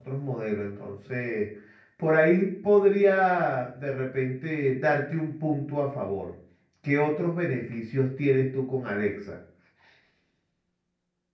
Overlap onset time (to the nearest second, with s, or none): none